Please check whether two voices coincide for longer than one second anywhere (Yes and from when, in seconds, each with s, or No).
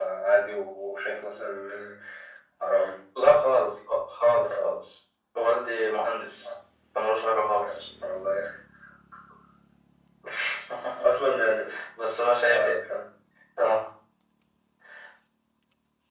No